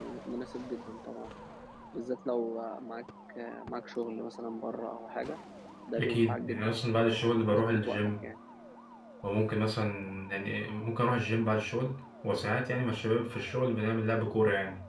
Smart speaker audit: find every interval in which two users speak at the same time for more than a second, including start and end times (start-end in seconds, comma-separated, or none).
6.0-8.1